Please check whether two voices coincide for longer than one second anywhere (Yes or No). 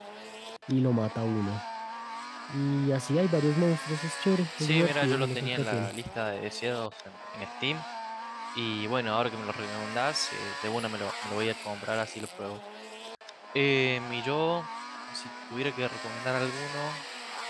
Yes